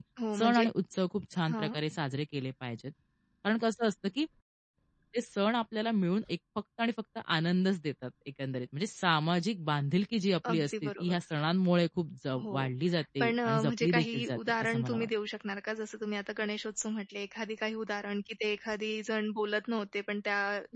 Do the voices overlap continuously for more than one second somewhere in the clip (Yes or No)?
Yes